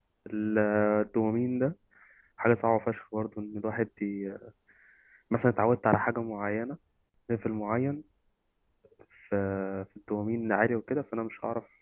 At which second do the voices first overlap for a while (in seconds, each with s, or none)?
none